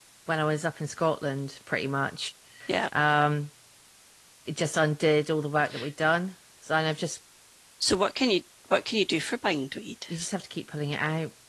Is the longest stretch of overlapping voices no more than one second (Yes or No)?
Yes